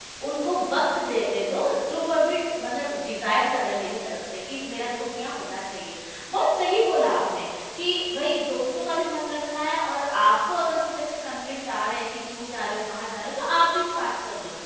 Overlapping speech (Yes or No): No